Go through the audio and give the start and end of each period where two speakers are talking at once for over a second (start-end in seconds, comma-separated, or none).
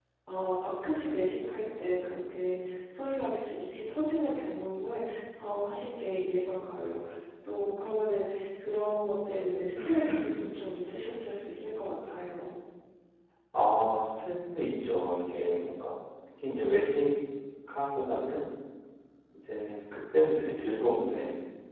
none